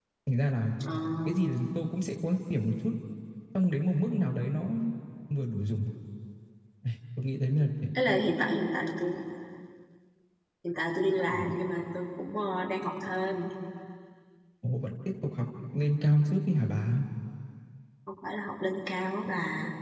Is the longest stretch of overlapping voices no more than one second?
Yes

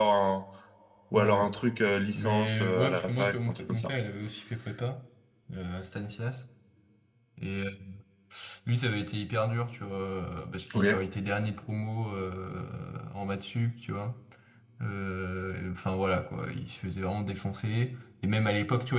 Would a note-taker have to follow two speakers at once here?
Yes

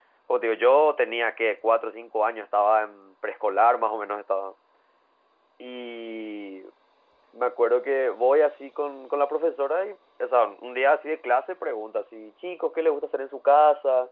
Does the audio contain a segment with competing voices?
No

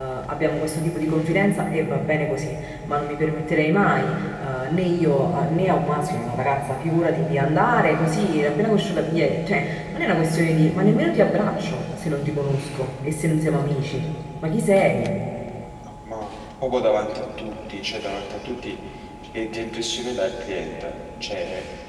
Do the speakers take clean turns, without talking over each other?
Yes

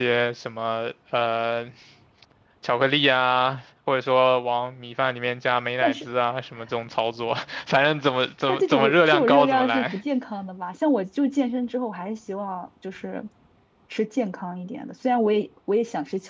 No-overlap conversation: No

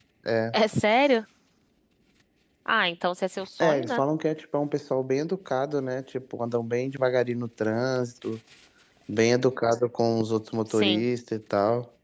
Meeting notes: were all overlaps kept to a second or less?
Yes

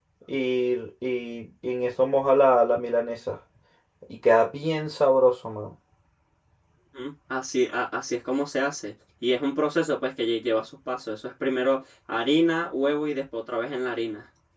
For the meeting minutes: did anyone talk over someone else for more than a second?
No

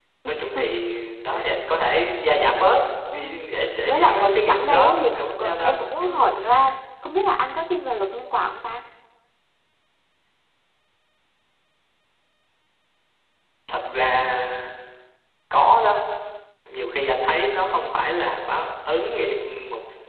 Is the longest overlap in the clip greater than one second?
Yes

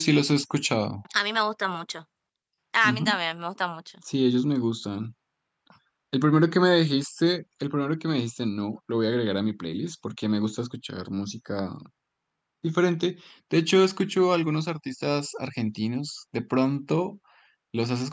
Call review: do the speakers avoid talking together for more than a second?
Yes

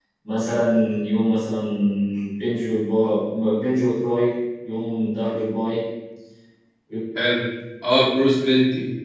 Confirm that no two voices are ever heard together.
Yes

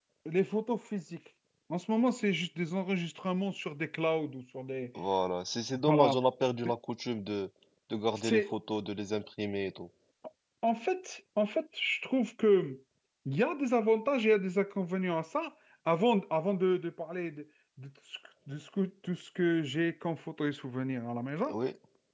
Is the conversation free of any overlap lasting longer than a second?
Yes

